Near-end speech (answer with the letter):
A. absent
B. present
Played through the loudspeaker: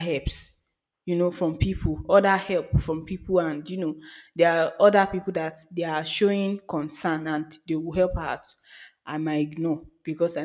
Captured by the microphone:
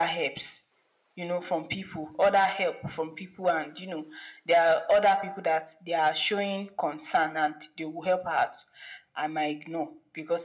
A